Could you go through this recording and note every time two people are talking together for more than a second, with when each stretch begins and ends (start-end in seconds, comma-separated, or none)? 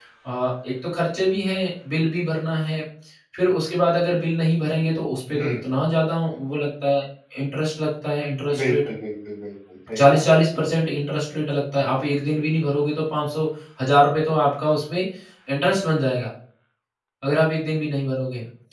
none